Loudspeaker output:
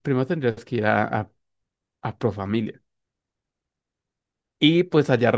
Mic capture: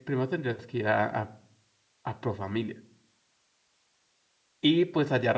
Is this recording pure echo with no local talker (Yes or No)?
Yes